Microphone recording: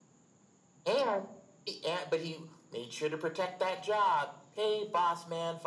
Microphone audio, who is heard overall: echo only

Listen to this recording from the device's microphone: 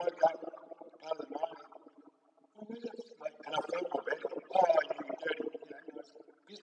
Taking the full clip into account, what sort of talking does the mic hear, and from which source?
echo only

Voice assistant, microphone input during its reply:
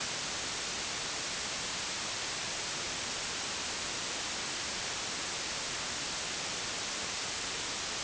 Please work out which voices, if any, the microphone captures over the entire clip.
neither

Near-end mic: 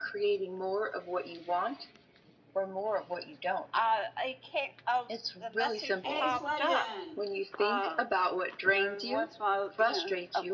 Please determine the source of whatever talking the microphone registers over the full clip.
both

